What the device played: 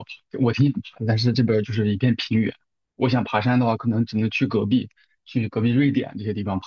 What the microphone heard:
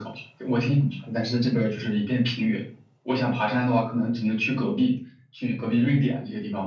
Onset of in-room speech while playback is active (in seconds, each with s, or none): none